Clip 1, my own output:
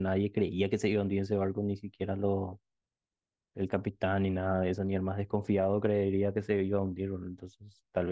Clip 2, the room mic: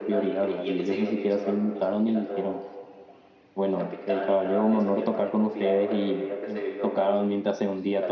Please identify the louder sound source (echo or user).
user